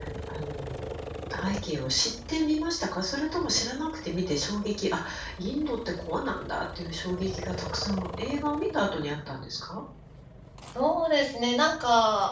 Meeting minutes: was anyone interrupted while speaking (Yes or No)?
No